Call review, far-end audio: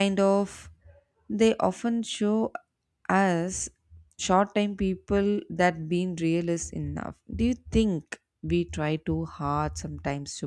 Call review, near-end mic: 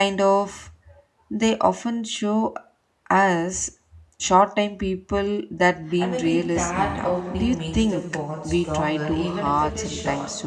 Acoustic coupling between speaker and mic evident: Yes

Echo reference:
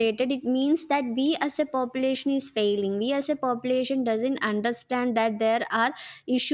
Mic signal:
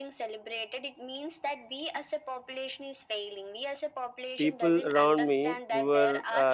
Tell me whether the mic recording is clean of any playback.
No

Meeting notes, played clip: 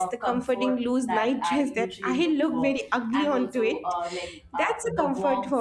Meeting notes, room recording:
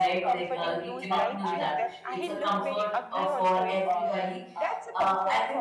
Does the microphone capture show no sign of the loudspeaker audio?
No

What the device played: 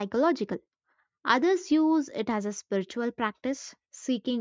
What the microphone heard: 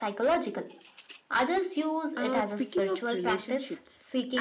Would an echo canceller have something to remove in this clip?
Yes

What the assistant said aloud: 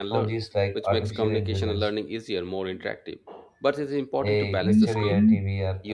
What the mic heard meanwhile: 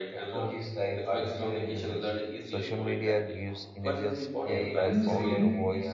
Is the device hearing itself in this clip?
Yes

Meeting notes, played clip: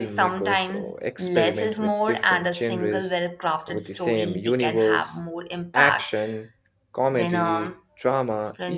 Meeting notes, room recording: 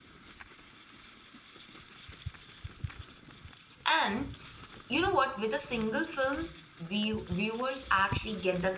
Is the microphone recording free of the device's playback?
Yes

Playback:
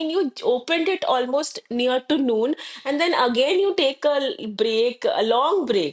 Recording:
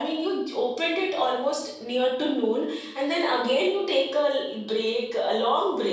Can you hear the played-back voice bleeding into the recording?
Yes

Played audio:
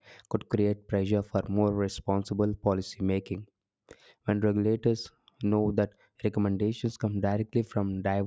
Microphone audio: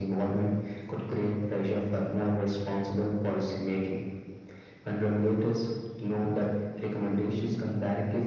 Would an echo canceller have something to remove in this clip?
Yes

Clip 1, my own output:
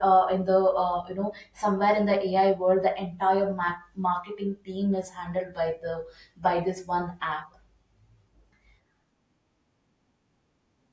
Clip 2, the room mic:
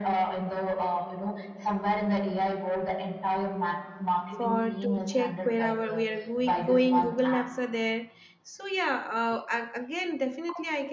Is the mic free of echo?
No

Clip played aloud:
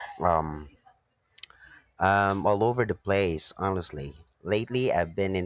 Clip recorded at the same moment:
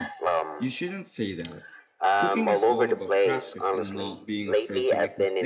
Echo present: Yes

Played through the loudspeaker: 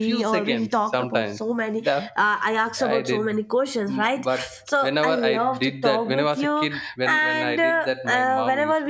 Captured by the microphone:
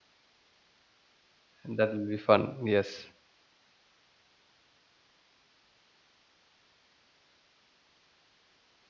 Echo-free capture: Yes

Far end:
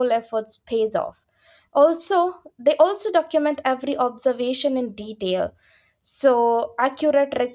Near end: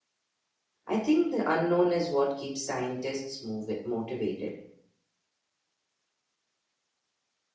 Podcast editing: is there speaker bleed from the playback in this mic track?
No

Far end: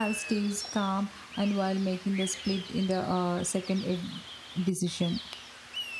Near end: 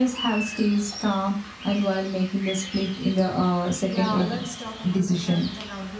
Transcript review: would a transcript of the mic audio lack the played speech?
No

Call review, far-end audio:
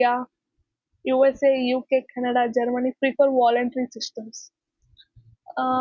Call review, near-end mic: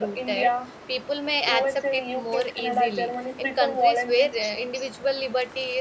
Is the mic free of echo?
No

